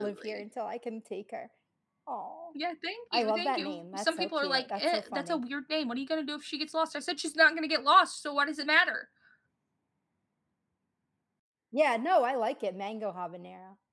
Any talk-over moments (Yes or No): Yes